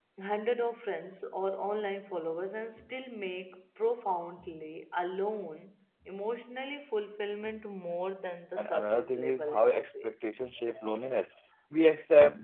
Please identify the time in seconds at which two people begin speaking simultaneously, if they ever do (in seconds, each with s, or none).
8.6 s